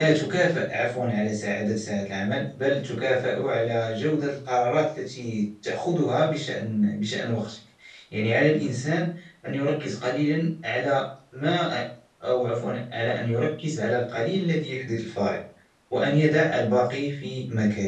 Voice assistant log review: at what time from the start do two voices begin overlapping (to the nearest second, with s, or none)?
none